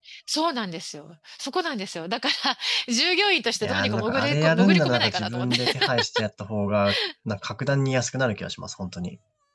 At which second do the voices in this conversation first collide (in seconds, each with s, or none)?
3.6 s